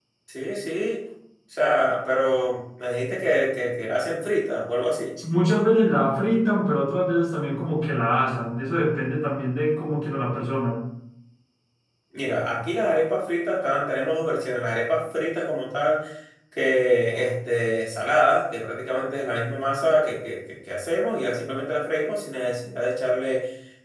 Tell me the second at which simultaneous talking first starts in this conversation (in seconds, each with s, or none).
none